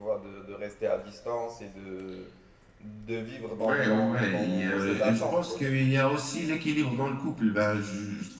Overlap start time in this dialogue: 4 s

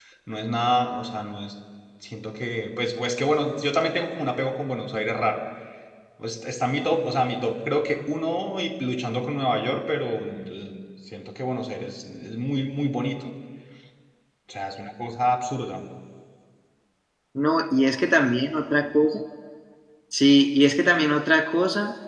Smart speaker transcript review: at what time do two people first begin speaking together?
none

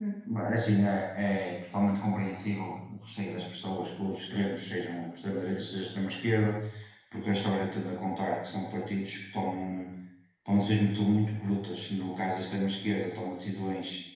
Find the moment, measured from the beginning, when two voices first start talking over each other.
none

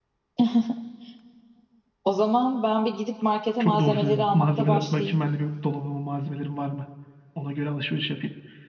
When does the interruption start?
4 s

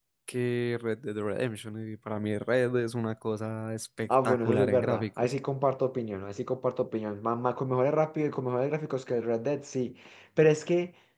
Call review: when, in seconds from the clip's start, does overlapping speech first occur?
4 s

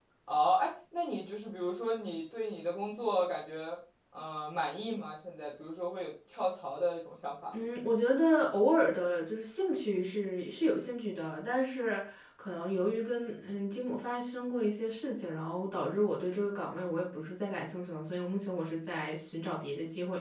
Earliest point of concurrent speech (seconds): none

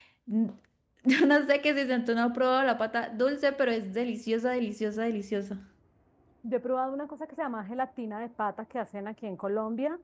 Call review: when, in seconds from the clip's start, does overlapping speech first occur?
none

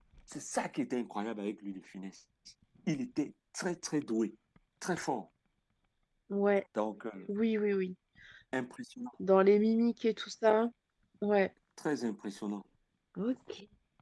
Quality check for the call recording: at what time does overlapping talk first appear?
none

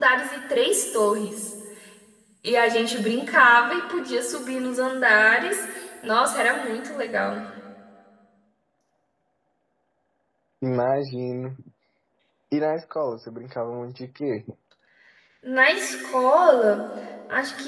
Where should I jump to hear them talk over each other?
none

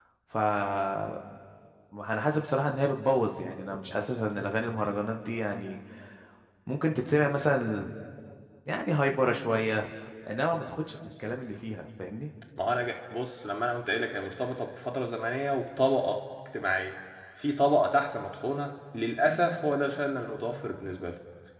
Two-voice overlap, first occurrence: none

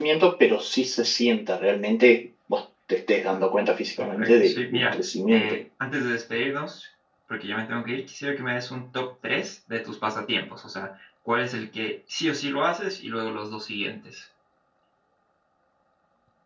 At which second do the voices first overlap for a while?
4 s

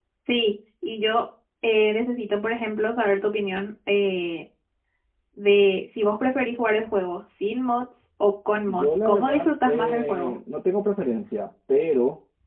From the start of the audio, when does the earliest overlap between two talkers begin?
9 s

